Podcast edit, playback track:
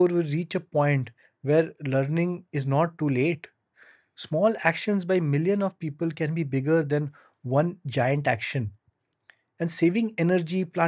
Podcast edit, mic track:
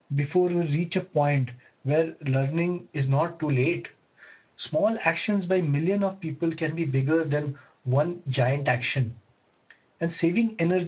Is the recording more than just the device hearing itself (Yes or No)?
No